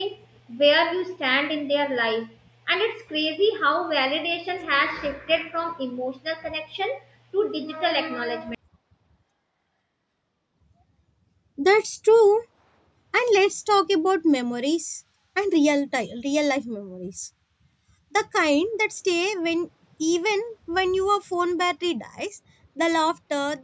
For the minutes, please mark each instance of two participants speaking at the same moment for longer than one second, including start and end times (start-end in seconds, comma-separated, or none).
none